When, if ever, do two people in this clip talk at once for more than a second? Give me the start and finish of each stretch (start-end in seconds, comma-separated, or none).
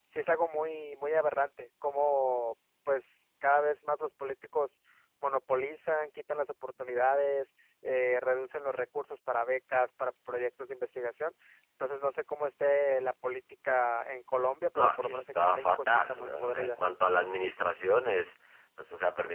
14.8-16.7